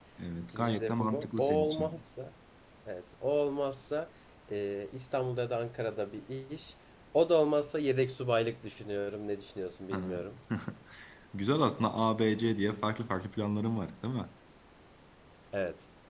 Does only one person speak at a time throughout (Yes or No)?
No